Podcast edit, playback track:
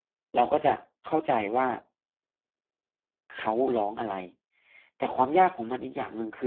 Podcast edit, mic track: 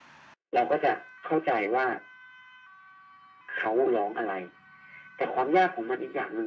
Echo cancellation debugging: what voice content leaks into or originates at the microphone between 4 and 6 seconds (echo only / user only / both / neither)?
echo only